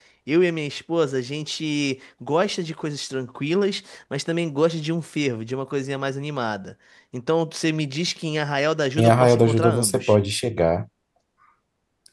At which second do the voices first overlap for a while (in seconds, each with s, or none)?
9.0 s